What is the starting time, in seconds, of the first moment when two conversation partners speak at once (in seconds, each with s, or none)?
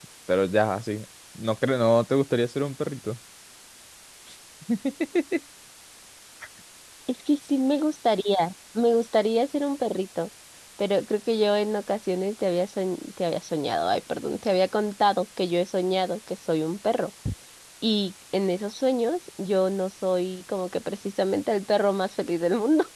none